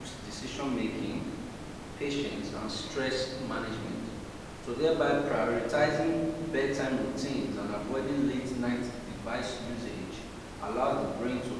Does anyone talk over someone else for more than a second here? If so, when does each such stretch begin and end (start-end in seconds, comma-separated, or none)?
none